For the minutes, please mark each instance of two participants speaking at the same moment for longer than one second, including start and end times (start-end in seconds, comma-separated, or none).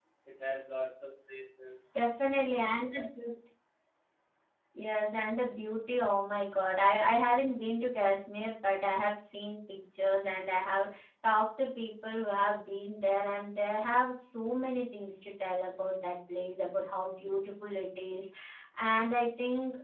none